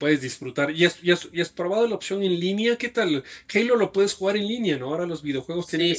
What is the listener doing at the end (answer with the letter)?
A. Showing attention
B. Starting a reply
B